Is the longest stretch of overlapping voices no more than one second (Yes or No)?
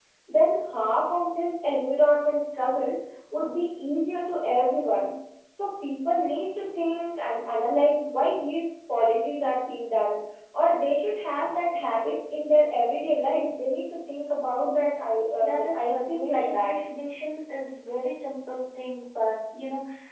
No